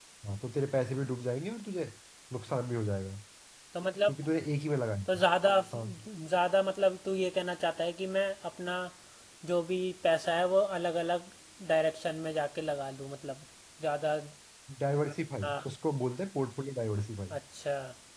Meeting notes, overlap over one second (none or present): none